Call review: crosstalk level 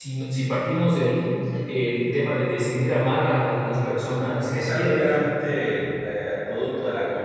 present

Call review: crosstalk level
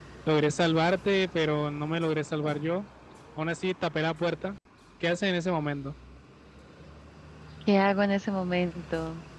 none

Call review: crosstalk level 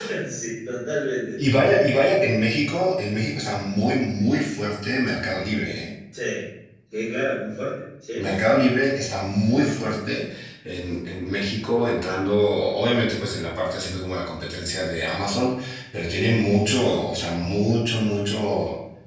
none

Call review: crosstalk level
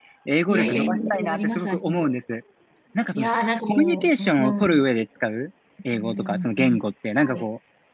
present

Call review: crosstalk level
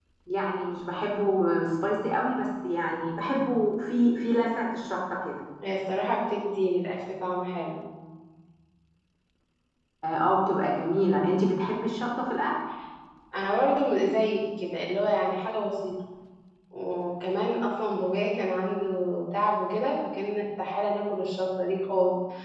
none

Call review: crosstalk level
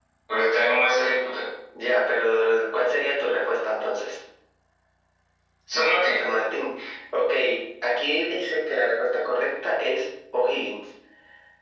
none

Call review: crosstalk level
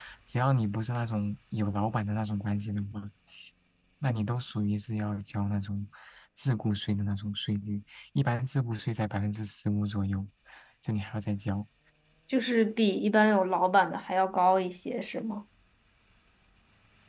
none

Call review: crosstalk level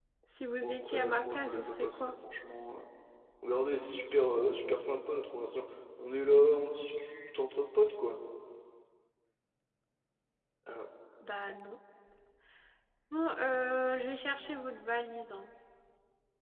present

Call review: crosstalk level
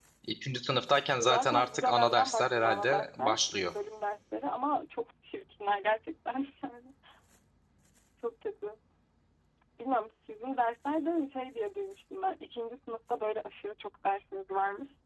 present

